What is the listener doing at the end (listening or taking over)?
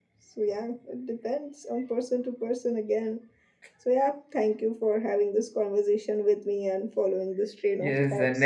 taking over